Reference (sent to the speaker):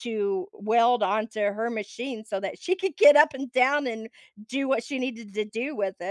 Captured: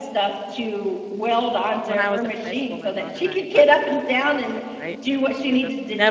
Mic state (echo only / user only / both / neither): both